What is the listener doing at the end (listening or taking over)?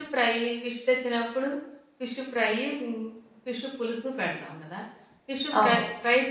listening